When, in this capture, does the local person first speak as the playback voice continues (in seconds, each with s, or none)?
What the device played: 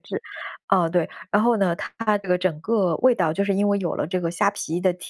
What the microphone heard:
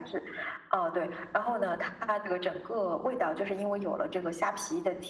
none